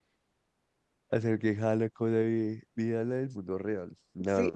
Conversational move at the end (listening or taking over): listening